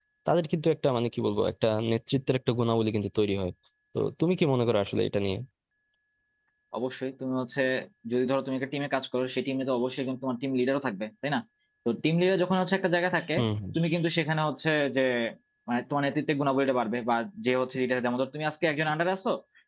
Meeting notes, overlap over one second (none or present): none